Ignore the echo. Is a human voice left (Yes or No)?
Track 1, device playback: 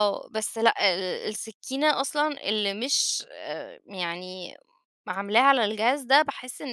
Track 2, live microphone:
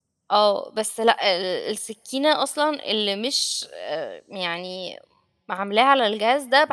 No